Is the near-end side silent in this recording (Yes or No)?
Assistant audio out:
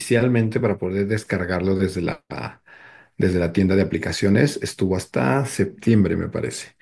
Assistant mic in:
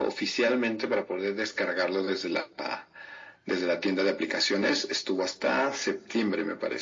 Yes